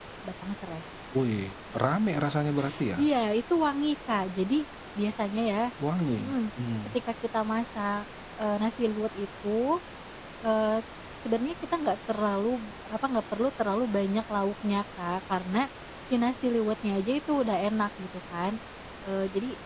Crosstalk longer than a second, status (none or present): none